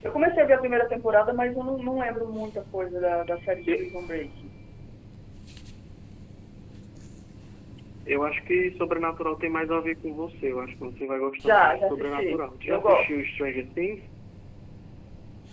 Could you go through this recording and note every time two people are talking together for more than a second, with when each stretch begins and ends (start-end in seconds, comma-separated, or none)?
11.4-13.1